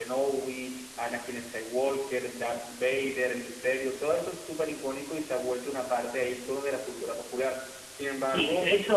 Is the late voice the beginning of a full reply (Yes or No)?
Yes